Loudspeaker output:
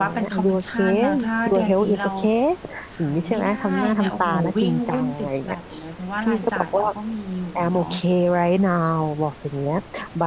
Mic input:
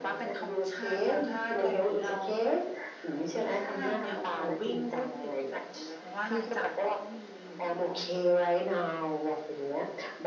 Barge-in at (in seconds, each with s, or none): none